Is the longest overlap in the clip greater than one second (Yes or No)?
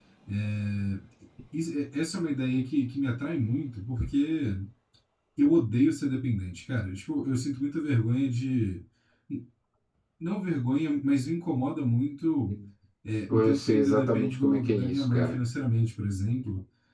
Yes